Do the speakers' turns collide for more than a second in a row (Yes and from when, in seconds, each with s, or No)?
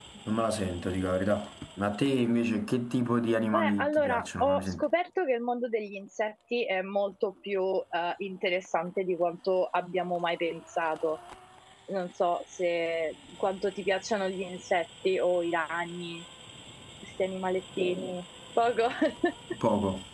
Yes, from 3.5 s